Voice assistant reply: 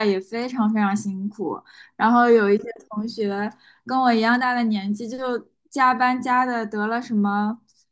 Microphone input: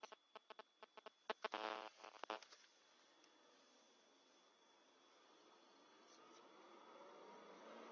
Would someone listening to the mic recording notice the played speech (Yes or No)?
No